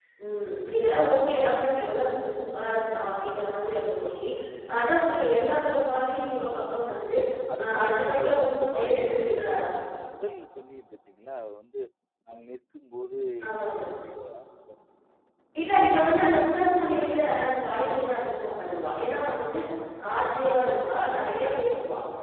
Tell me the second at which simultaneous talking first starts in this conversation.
7.6 s

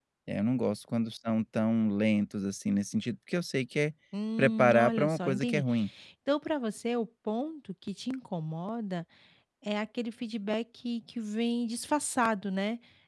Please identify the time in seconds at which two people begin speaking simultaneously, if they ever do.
4.4 s

